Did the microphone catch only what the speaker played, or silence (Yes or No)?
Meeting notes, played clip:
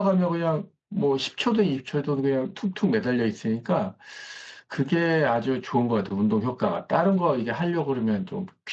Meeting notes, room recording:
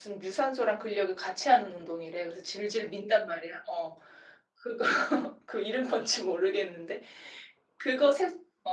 No